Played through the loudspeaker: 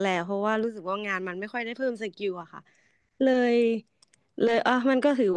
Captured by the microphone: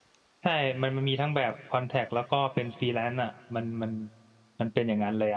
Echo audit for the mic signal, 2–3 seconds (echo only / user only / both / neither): user only